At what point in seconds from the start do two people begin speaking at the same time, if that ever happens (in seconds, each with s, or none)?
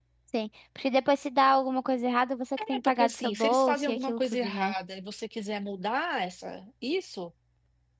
2.6 s